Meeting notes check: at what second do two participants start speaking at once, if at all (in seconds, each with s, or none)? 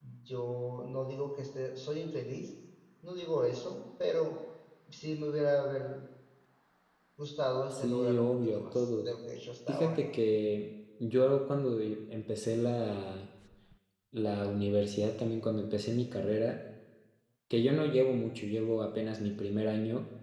7.7 s